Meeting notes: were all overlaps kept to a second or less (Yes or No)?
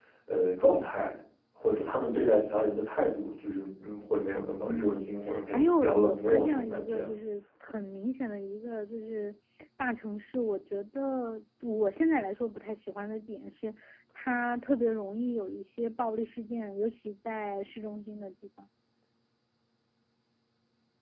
No